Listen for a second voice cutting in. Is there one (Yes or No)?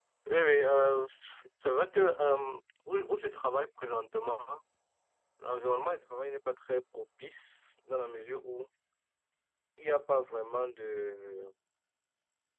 No